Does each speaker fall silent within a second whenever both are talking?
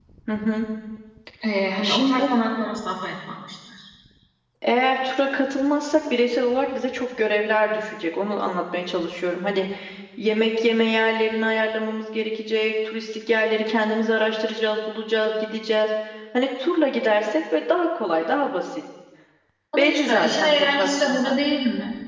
No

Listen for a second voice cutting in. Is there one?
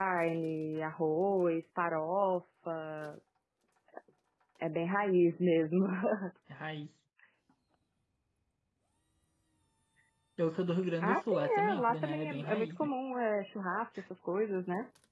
Yes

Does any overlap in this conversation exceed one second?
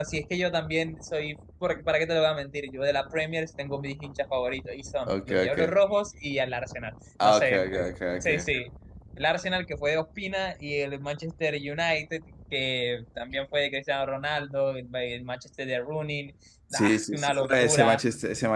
Yes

